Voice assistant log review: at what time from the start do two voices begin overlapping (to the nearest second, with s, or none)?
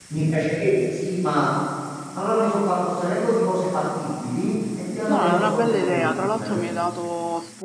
5 s